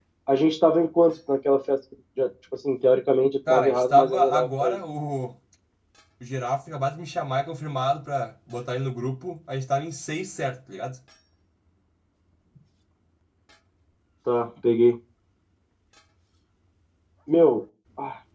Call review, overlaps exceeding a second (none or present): present